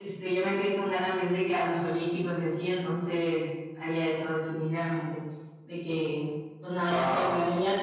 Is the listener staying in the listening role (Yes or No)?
Yes